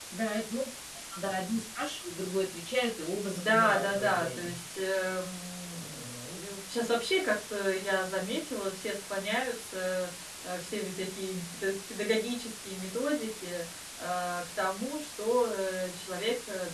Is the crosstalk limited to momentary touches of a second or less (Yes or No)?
No